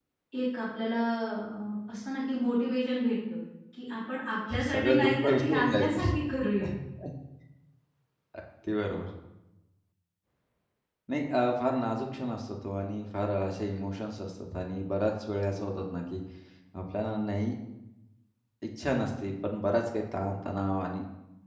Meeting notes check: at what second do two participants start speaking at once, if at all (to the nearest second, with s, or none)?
5 s